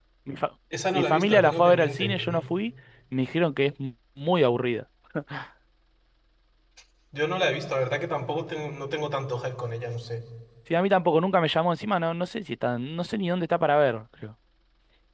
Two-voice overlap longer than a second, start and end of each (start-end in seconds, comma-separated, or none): 0.9-2.4